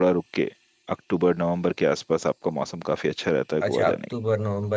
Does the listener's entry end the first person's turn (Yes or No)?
Yes